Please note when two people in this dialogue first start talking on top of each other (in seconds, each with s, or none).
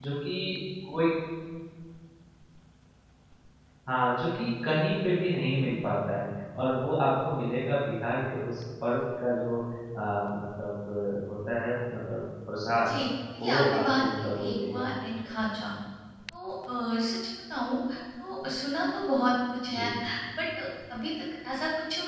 13.4 s